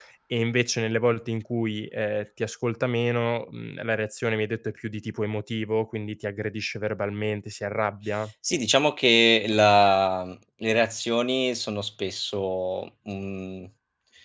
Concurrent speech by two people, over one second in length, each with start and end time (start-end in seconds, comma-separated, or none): none